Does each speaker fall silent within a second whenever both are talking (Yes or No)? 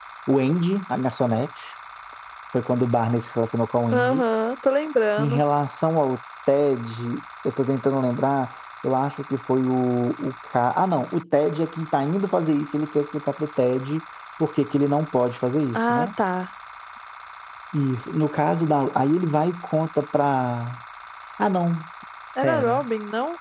Yes